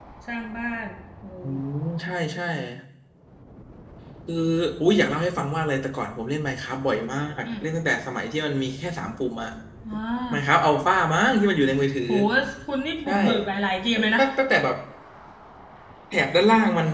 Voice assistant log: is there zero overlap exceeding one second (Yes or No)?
Yes